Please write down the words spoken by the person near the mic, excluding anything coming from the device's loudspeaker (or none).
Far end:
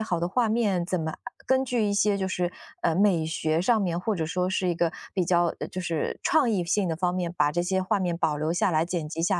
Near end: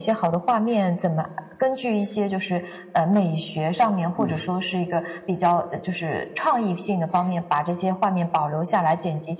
嗯，